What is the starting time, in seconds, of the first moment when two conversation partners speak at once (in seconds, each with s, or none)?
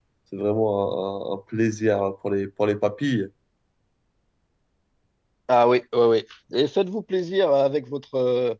none